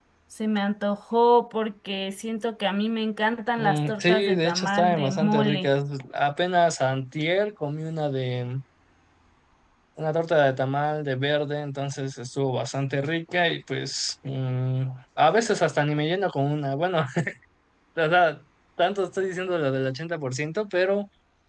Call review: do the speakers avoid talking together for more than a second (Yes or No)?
No